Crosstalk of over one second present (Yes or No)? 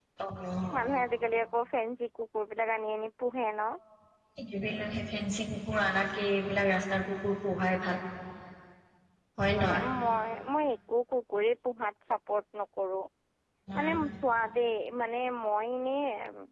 No